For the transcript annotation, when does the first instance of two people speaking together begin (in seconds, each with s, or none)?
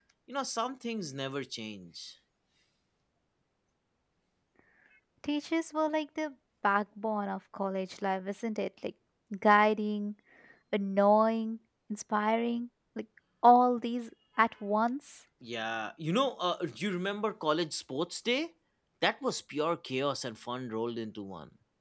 none